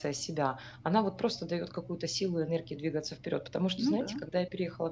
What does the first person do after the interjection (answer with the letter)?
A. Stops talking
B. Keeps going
B